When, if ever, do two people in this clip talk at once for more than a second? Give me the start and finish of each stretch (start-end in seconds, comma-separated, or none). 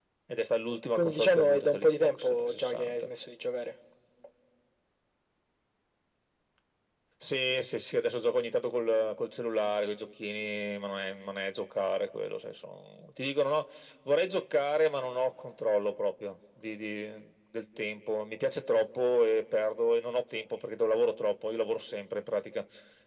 0.9-3.1